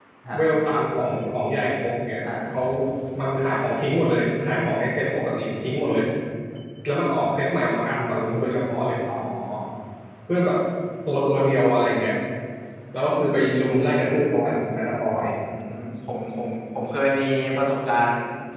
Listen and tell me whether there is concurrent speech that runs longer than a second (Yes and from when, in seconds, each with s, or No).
No